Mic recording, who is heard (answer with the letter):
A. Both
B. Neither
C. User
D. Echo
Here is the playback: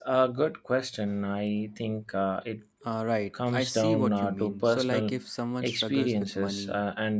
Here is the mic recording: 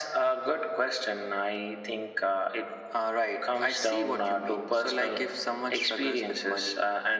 D